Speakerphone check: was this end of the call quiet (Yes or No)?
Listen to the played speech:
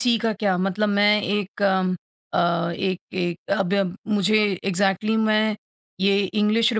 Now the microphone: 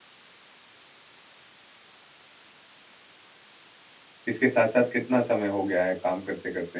No